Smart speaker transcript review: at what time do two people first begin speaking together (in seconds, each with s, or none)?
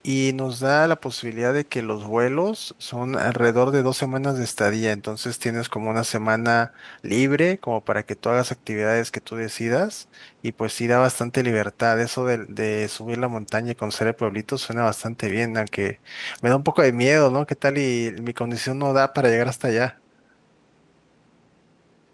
none